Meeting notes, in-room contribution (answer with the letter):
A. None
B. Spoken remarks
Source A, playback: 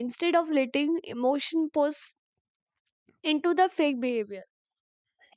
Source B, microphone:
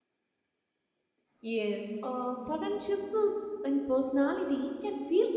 B